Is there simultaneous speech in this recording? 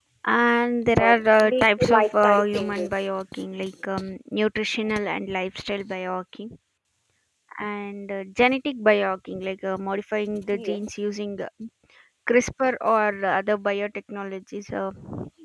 Yes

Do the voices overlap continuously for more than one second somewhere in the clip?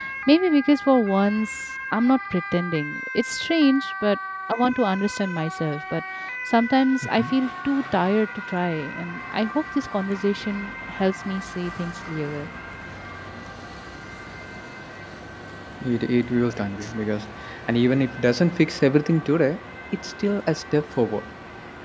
No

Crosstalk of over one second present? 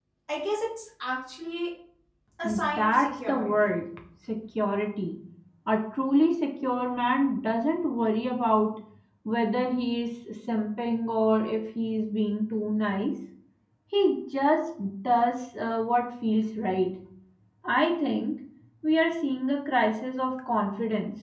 Yes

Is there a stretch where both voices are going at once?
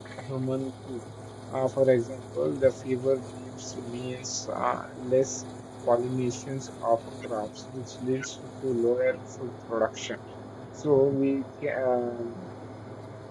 No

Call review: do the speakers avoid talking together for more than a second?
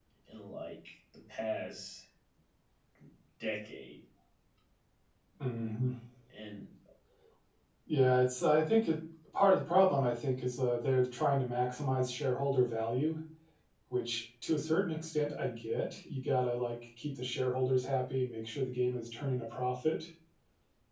Yes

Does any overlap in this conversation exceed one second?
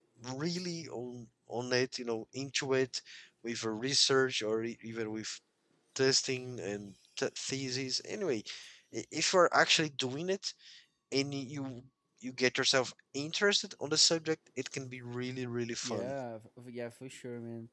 No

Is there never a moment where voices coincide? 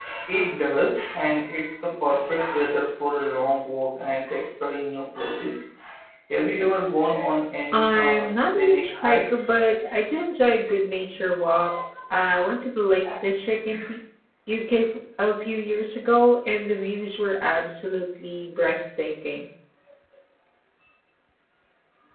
No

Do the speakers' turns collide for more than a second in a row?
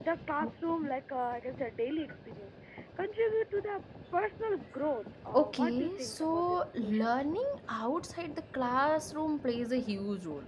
Yes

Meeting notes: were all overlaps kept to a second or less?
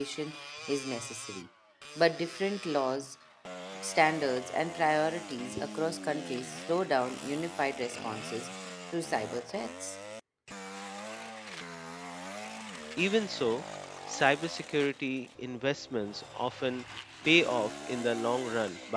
Yes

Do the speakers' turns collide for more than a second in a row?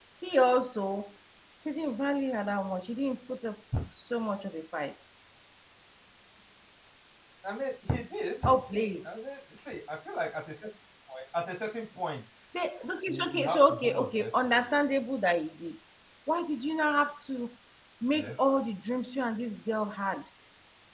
Yes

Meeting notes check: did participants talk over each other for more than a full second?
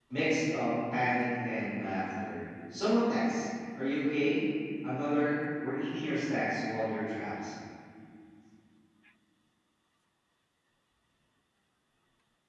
No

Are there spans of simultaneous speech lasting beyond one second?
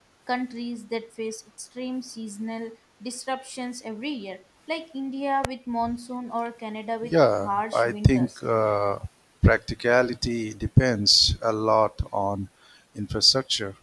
Yes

